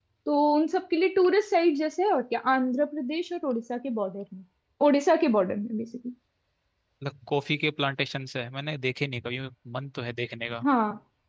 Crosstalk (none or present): none